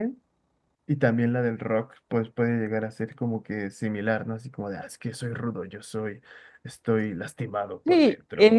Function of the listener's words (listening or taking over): taking over